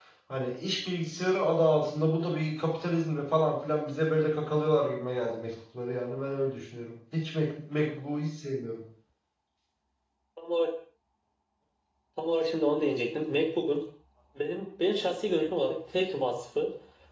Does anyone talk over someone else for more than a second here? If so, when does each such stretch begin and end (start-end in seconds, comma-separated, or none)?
none